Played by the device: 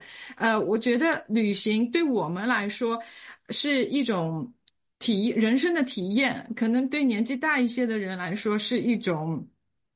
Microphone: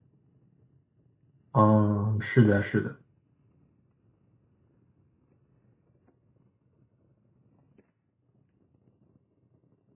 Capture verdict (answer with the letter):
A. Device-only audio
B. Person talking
B